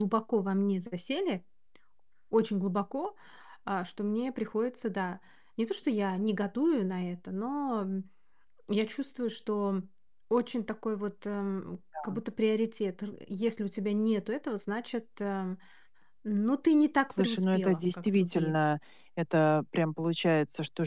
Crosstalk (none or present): present